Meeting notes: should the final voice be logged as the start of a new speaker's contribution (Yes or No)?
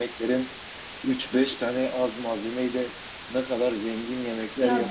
No